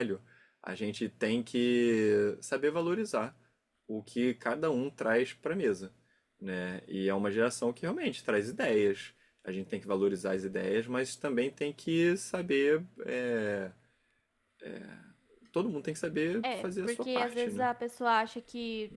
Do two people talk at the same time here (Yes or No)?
Yes